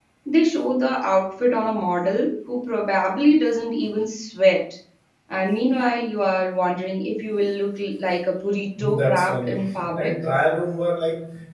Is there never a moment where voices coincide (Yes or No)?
No